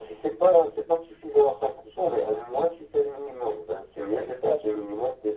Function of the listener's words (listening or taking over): listening